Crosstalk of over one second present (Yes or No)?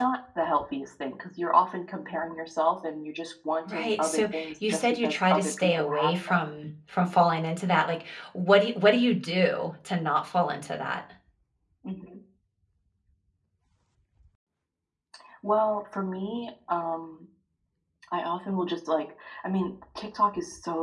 Yes